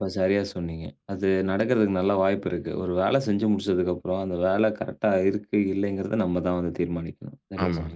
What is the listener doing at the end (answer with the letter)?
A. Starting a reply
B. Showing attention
A